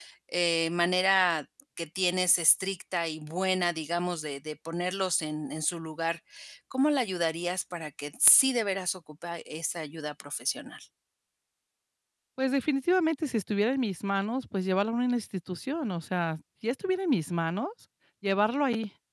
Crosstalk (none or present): none